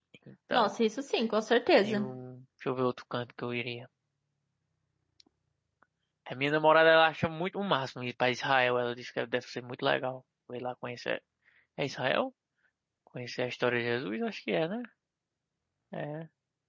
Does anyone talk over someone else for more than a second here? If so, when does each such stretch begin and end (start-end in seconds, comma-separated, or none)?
none